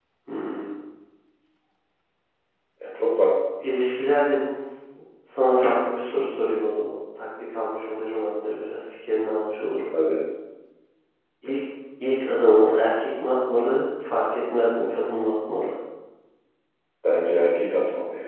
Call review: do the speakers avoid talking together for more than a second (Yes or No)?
Yes